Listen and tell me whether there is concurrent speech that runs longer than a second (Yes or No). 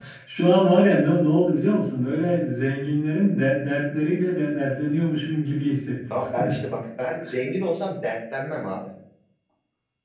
No